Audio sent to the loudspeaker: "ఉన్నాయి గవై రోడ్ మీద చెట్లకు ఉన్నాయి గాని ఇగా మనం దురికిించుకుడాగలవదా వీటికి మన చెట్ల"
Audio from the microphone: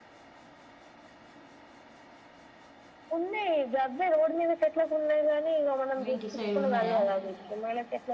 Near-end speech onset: 6.0 s

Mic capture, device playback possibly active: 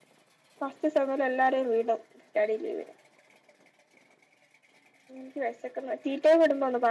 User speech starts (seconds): none

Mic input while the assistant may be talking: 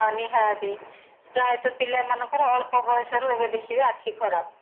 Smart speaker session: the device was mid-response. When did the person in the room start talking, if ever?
none

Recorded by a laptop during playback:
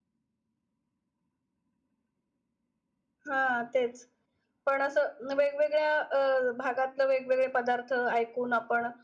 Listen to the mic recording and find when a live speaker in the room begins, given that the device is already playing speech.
3.3 s

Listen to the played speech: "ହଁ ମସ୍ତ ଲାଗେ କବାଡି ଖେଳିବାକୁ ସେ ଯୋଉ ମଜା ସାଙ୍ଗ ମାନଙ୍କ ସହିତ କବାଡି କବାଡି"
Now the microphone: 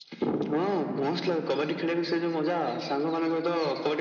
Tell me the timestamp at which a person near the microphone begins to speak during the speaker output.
none

